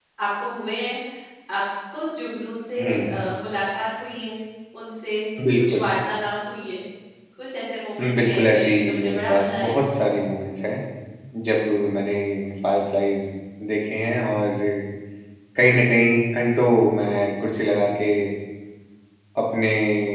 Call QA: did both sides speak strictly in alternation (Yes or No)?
No